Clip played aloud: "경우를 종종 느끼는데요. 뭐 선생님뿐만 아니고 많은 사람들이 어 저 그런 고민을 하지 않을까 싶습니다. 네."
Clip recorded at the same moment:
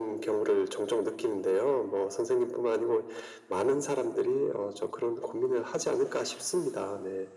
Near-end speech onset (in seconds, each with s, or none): none